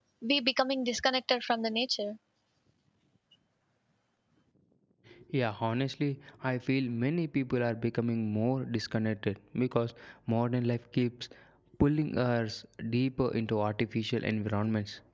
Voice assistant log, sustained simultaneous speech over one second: none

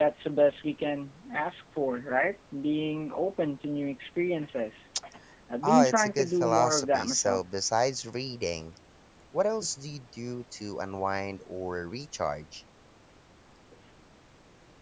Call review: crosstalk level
present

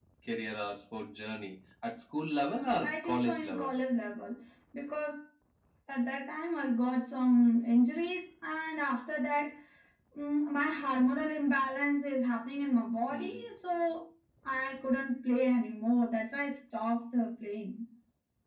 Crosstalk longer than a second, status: present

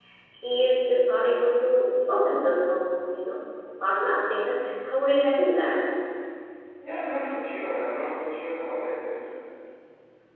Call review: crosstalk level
none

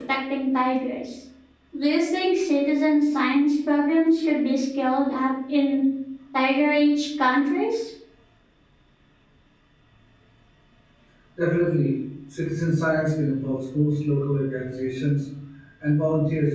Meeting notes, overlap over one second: none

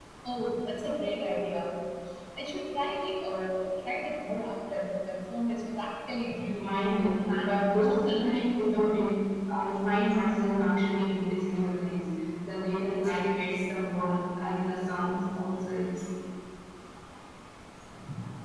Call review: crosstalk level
present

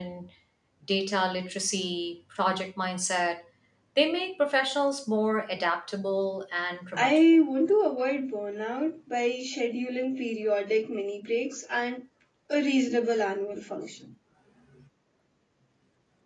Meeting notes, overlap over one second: none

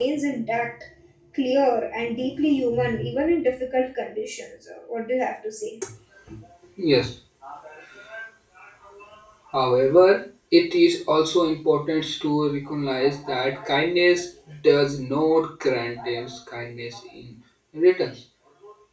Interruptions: none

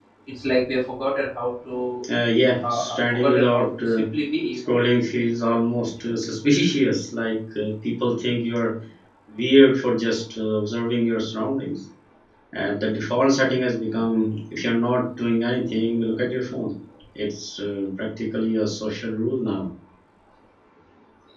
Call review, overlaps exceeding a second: present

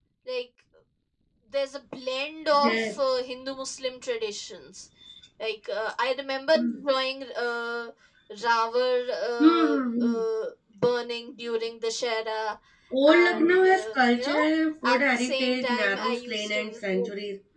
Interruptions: present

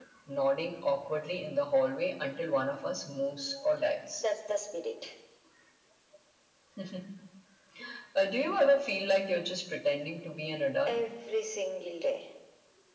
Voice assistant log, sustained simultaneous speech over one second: none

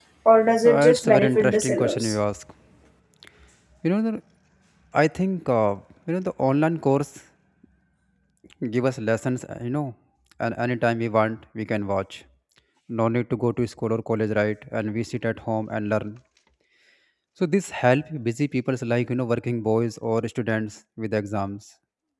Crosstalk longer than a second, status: present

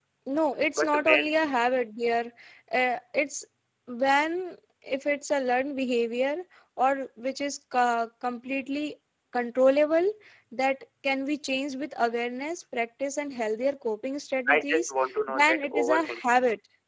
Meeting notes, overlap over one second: present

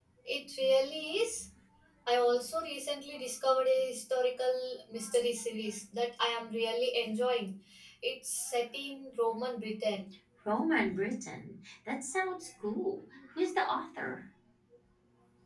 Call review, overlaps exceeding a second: none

